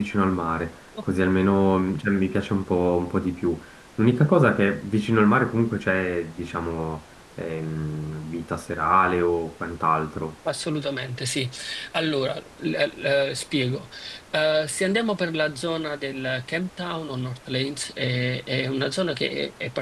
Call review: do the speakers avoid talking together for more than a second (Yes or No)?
Yes